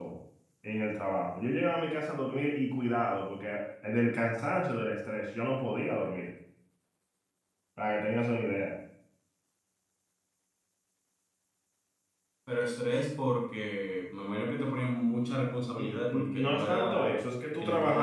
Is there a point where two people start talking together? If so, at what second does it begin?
15.8 s

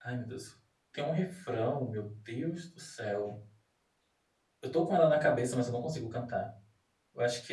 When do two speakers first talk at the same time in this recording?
none

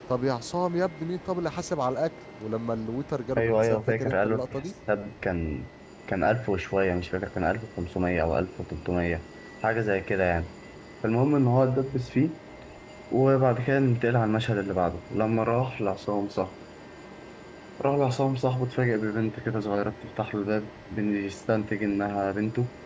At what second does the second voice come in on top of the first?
3.4 s

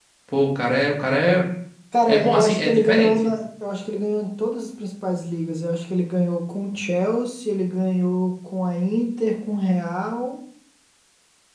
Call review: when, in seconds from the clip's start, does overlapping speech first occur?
2.1 s

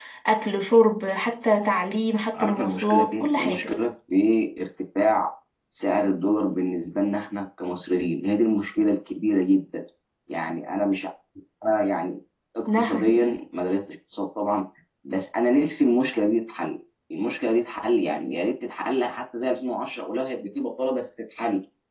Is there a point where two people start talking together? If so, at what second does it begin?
2.3 s

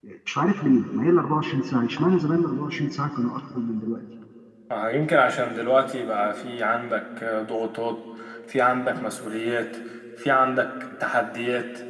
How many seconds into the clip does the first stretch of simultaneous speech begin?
none

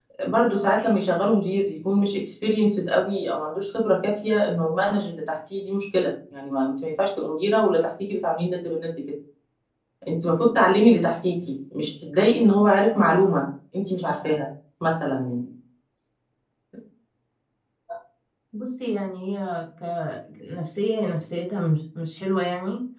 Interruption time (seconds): none

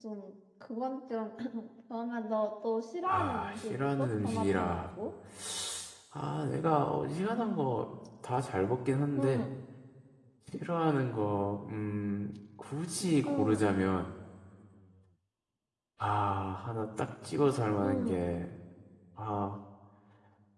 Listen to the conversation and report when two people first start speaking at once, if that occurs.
3.1 s

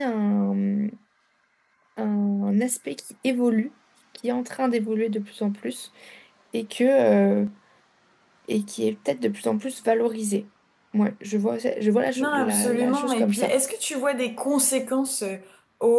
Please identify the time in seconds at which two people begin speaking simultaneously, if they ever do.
12.2 s

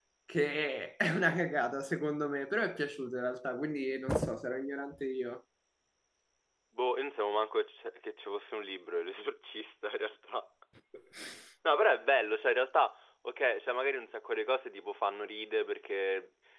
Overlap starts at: none

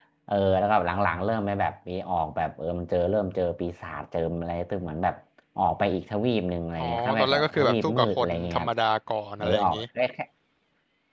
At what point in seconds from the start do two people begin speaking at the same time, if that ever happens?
6.8 s

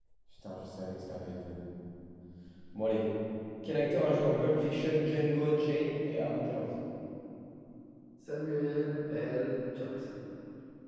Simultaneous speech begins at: none

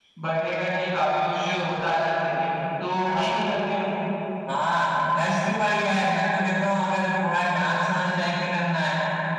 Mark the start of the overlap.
none

